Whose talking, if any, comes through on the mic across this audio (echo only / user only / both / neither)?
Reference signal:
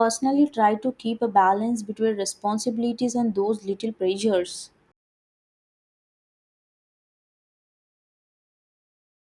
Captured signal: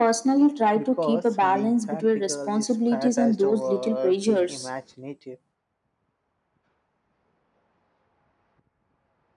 both